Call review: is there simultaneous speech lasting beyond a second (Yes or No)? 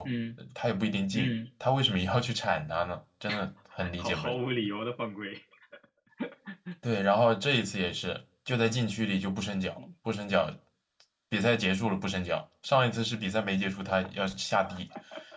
No